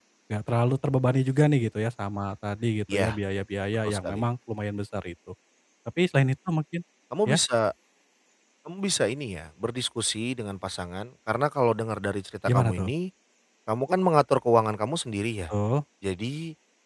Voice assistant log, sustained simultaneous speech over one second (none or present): none